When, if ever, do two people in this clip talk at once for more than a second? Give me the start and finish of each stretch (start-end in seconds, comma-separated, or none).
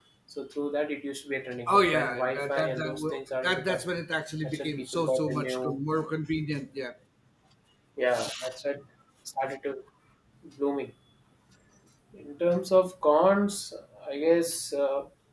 1.7-3.8, 4.4-5.8